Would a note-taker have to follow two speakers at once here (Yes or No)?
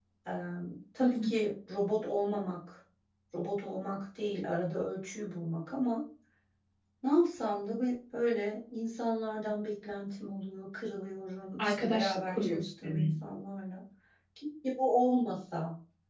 Yes